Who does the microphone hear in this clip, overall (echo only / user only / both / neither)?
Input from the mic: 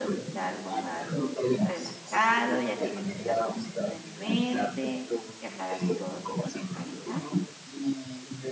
both